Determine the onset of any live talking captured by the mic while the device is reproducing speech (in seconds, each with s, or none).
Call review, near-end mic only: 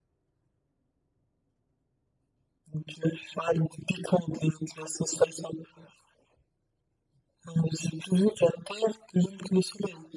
none